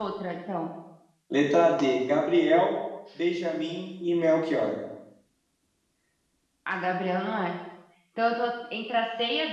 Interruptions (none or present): none